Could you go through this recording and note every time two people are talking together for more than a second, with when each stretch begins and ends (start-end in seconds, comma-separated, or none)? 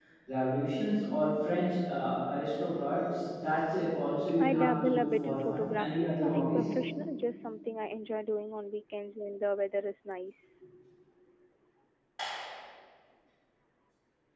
4.4-6.6